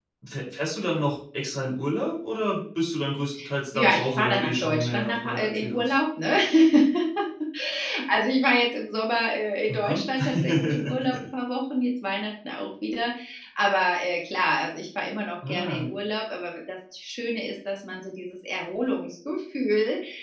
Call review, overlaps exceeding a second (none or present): present